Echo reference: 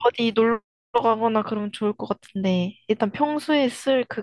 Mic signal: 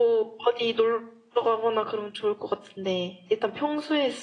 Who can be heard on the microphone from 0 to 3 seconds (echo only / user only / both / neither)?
echo only